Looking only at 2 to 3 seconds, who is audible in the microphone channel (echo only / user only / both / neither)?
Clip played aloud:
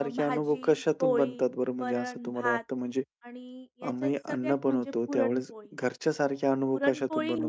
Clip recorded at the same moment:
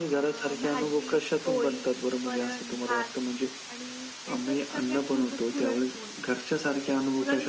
echo only